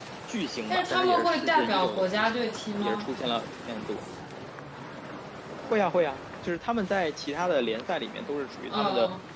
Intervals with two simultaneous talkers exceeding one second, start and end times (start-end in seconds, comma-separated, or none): 0.7-3.1